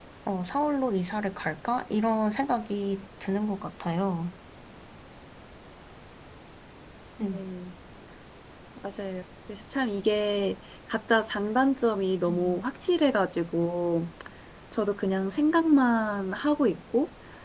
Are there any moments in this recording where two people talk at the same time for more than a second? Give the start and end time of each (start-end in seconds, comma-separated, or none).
none